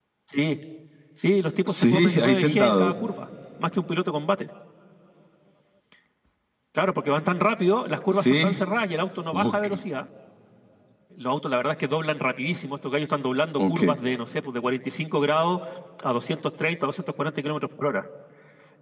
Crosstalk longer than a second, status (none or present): present